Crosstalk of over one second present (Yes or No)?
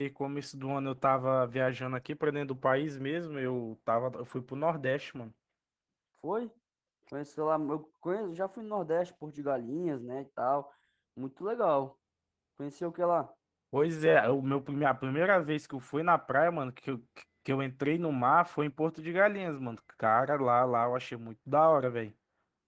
No